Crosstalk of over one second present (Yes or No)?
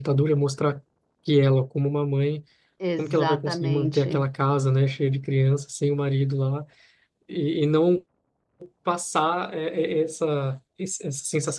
Yes